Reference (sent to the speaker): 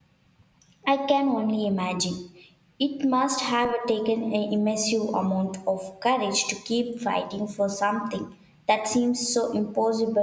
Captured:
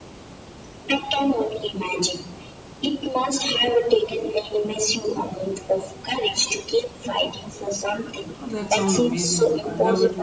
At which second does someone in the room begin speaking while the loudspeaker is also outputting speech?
8.4 s

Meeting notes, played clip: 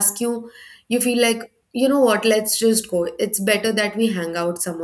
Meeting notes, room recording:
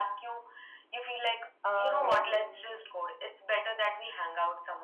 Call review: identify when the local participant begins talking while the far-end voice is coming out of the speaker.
1.6 s

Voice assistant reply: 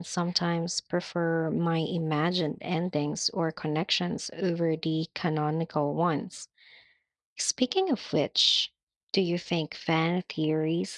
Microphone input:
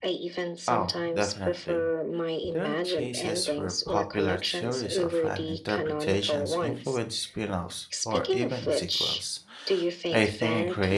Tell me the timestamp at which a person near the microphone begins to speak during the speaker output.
0.7 s

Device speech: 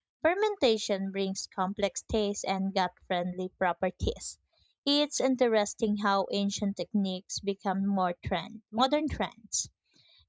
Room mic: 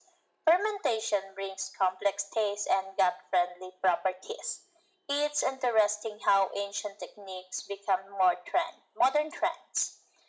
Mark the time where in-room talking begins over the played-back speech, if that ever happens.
none

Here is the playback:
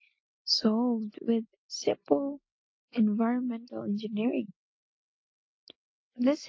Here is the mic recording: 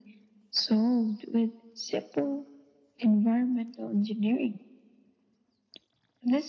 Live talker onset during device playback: none

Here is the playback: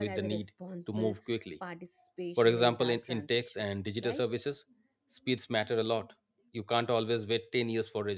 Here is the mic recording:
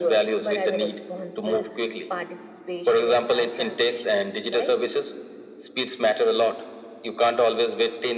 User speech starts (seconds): none

